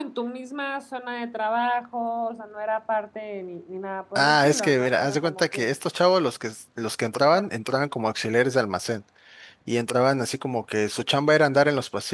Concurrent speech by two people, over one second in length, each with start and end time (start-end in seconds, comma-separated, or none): 4.2-5.7